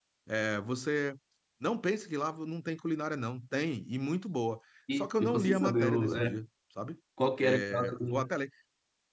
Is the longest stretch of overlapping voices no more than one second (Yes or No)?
No